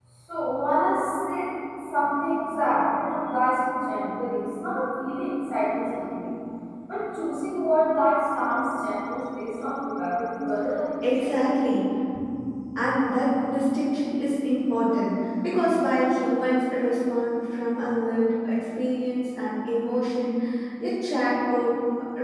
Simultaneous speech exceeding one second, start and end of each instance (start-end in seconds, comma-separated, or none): none